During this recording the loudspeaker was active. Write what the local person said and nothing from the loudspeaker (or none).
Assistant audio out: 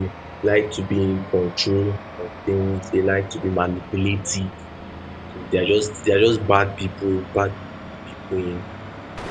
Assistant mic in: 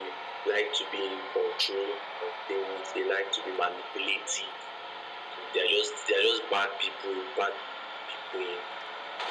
none